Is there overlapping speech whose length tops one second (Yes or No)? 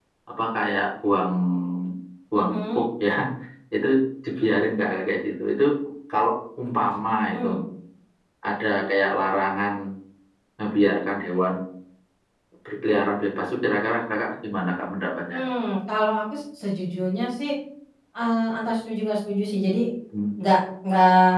No